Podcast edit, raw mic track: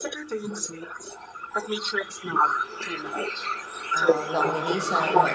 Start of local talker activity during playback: 3.9 s

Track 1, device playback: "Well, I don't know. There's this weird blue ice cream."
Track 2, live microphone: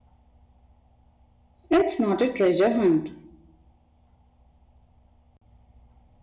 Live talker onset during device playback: 1.7 s

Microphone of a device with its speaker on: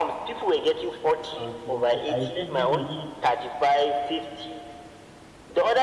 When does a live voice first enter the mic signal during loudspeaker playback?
1.4 s

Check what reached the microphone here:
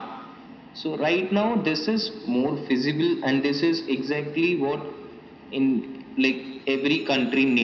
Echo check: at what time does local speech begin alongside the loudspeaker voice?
none

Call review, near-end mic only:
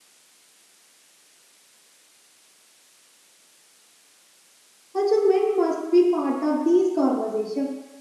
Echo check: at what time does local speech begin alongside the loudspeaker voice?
4.9 s

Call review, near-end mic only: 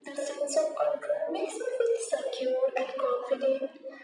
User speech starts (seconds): none

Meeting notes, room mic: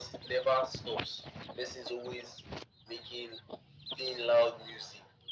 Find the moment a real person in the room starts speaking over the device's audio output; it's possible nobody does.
none

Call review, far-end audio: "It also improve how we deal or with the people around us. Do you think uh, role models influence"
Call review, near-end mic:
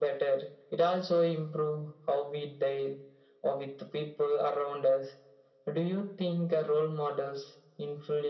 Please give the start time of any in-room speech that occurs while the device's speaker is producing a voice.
none

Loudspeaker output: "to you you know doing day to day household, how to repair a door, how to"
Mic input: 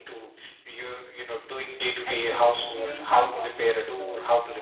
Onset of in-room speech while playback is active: 2.0 s

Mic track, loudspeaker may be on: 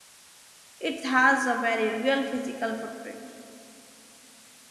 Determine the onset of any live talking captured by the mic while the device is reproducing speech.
0.8 s

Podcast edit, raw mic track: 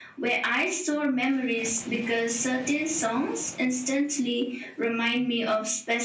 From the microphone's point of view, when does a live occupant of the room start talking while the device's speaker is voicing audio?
none

